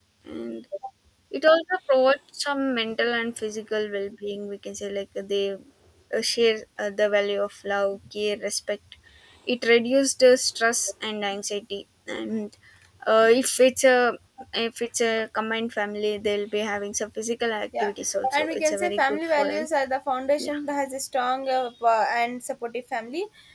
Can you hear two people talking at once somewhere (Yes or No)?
Yes